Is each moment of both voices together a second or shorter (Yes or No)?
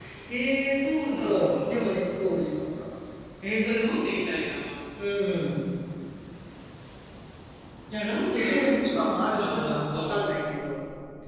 No